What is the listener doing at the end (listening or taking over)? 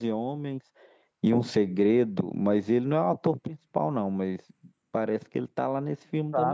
taking over